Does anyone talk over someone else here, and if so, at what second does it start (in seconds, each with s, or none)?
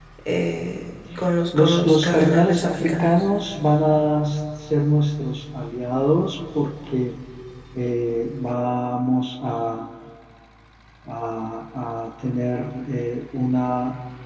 1.5 s